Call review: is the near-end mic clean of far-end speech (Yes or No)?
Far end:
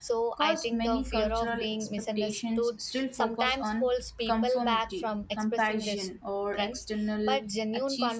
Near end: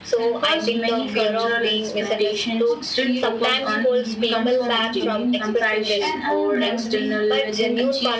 No